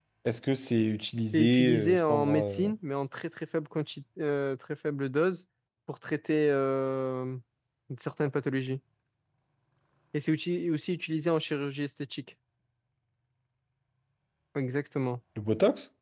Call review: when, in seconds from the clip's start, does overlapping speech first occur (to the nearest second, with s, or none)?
1 s